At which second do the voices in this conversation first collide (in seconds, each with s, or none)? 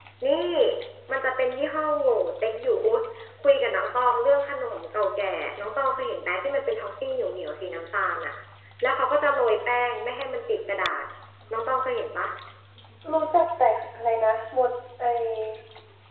none